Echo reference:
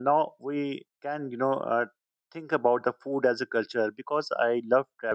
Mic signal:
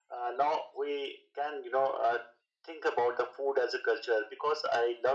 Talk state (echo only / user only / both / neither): echo only